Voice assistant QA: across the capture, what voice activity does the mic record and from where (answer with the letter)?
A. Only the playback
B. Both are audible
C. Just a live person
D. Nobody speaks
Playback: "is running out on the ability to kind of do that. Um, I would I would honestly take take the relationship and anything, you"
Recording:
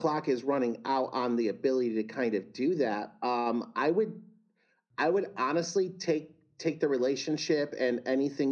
A